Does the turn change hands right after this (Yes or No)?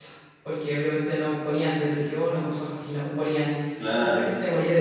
No